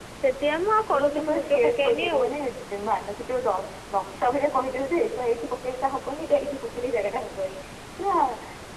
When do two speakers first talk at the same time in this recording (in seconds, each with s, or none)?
0.9 s